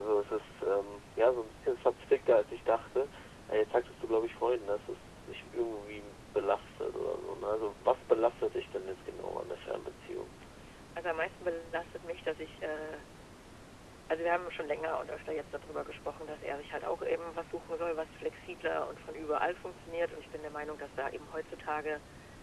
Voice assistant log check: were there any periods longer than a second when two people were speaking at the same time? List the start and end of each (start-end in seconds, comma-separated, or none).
none